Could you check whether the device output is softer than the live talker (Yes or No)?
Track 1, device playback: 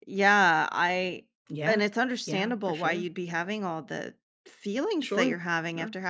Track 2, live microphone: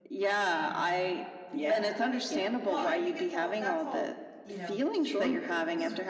No